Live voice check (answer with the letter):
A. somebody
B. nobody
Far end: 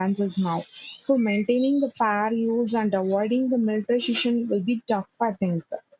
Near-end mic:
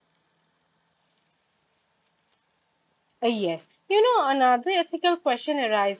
A